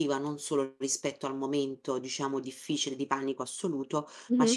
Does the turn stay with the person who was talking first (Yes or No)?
Yes